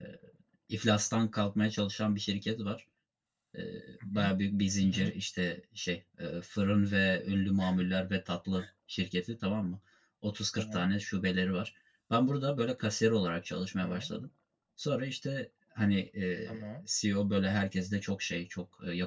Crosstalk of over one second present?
No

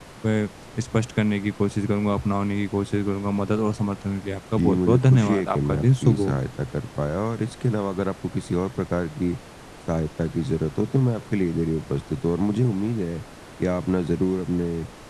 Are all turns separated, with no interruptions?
No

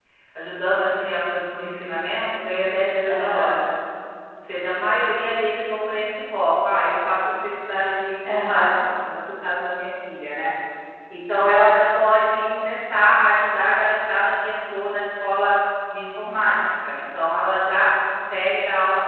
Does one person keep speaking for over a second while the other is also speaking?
No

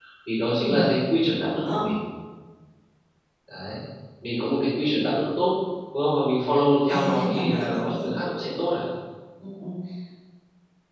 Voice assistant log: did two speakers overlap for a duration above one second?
Yes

